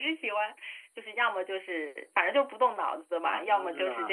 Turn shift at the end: No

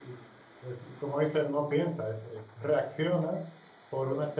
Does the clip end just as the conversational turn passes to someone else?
No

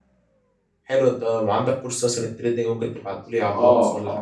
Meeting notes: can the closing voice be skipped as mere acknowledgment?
No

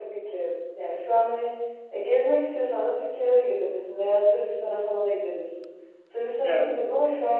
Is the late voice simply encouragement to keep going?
Yes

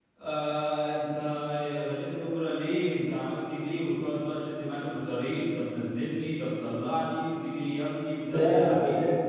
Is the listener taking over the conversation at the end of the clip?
Yes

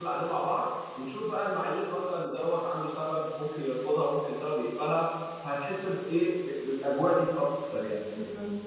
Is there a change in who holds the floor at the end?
Yes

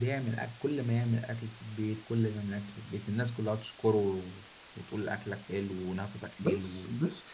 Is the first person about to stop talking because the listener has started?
Yes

